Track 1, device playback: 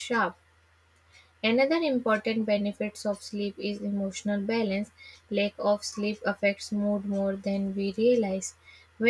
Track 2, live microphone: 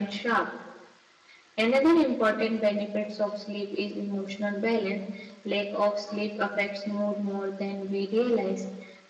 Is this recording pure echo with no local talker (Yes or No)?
Yes